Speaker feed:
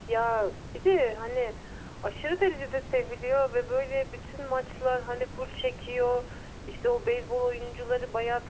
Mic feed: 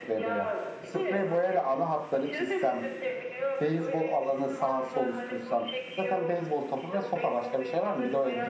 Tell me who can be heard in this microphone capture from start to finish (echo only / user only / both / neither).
both